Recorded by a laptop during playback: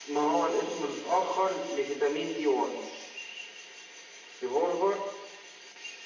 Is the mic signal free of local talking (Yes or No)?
Yes